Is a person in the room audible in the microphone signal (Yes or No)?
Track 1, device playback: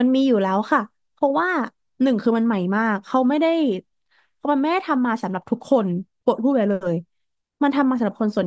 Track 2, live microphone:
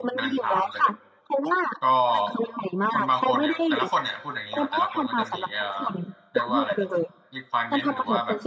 Yes